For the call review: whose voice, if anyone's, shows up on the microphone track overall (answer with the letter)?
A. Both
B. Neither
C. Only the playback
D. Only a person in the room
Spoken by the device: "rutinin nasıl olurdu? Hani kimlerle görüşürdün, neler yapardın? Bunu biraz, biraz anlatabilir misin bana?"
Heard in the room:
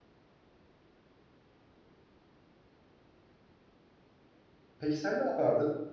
D